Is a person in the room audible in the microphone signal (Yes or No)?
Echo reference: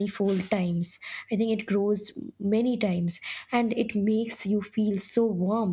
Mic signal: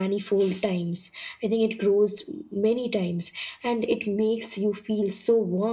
No